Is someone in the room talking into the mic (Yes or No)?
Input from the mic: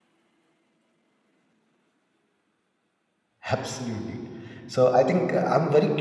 Yes